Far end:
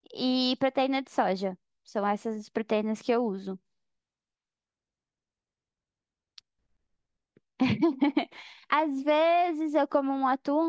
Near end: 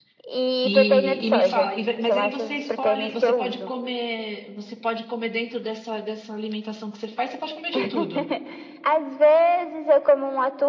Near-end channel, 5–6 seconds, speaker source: user only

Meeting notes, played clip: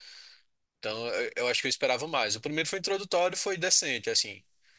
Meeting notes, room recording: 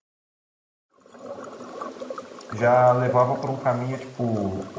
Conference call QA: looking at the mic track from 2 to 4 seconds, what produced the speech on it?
user only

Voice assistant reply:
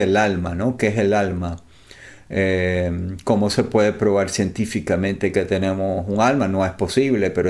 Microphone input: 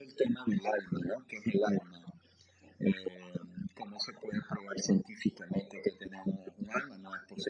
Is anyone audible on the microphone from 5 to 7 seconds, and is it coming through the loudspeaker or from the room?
echo only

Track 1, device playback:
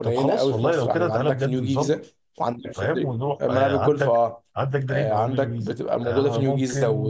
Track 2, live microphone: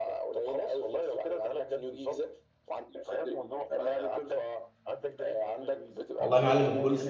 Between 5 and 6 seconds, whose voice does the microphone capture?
echo only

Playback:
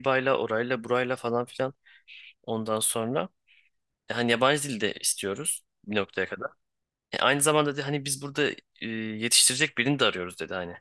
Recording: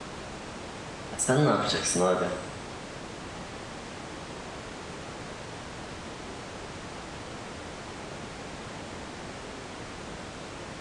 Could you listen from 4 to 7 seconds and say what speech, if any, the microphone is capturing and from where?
neither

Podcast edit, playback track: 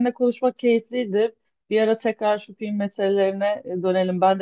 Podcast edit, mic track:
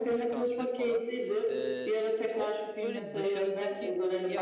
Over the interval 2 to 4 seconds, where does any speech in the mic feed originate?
both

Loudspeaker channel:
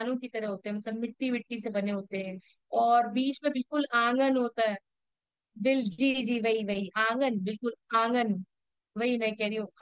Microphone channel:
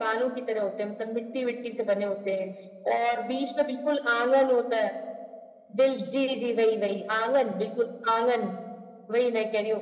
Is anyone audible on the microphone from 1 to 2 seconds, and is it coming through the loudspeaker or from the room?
echo only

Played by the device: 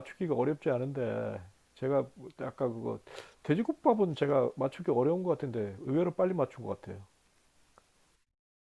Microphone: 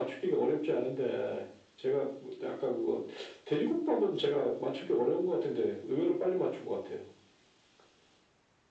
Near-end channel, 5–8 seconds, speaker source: echo only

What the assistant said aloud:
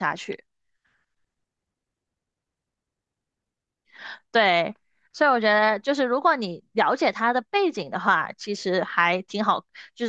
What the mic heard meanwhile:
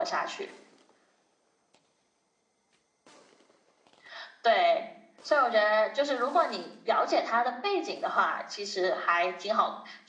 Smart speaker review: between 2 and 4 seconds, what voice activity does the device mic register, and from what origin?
neither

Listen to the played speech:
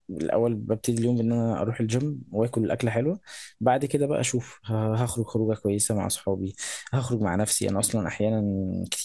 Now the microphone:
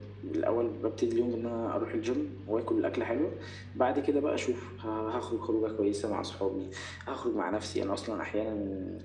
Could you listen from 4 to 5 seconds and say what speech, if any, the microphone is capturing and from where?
echo only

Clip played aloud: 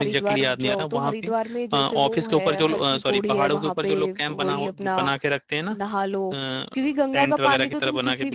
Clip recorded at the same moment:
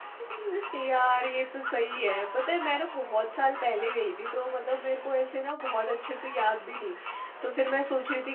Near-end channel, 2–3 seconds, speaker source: user only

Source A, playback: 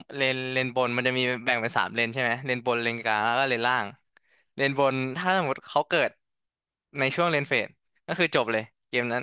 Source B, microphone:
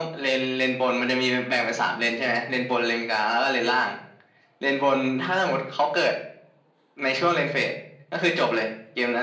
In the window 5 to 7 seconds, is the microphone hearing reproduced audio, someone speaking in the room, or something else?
echo only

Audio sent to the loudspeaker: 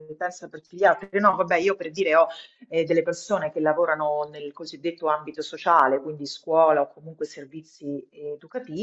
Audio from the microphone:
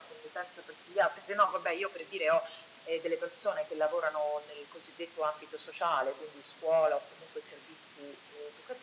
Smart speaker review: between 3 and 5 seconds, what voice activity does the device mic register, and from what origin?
echo only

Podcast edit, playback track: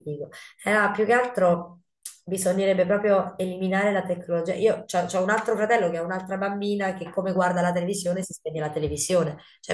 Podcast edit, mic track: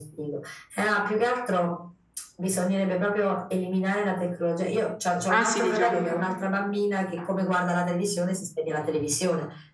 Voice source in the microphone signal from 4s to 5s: echo only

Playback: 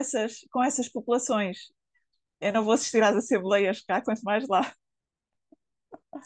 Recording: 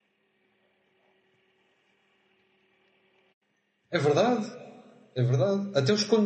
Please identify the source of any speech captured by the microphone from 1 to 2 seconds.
neither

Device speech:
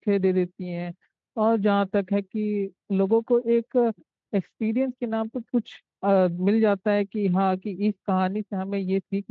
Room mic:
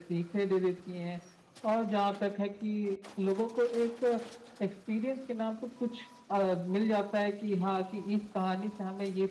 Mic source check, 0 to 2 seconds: echo only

